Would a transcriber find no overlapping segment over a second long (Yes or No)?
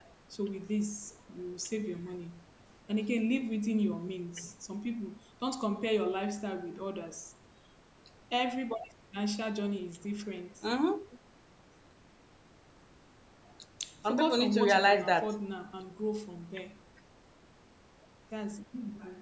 No